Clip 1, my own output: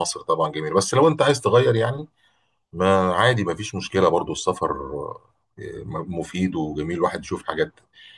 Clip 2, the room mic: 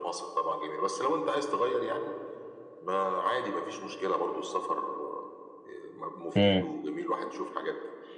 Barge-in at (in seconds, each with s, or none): 6.4 s